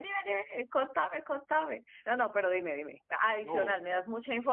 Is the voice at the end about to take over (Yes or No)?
No